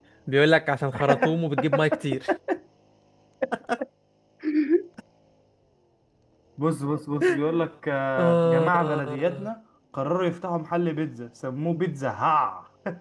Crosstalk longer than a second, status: present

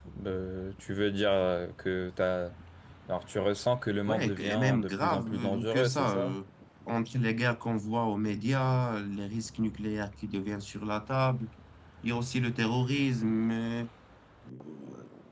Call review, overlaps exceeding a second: present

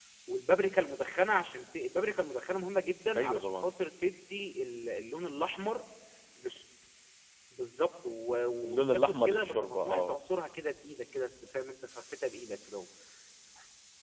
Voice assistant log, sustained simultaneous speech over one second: present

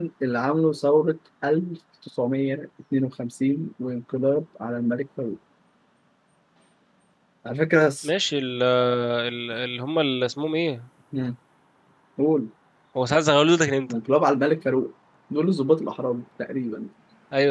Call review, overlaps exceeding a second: none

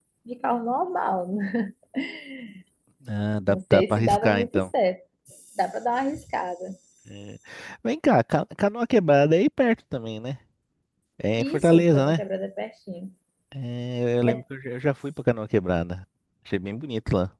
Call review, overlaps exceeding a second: present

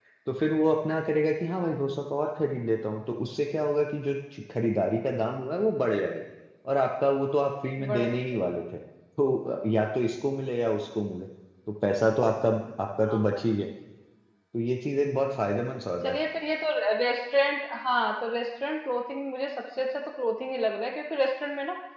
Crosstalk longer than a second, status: none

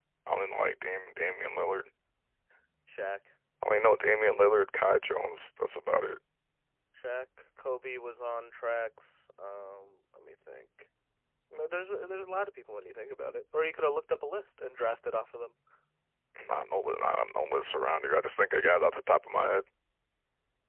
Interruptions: none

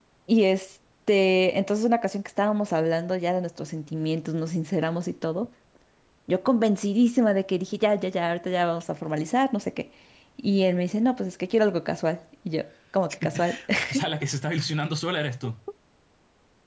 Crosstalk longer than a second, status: none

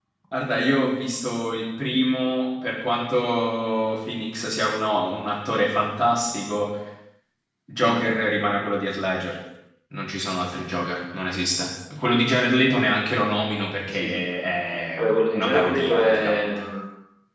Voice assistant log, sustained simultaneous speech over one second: present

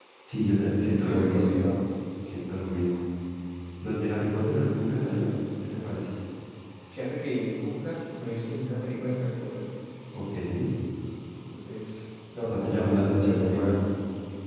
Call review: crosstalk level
present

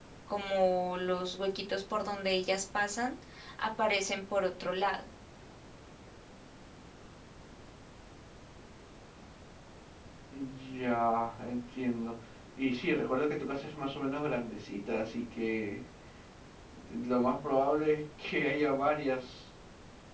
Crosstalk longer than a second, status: none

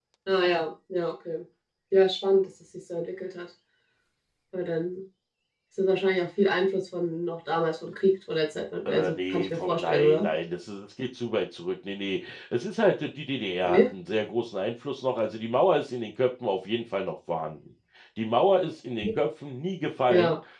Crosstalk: present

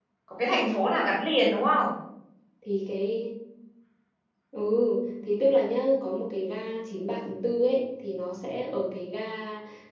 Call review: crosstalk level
none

